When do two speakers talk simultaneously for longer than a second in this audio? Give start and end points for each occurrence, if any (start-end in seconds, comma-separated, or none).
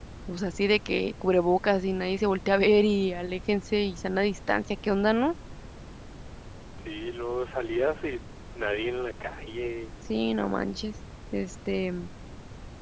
none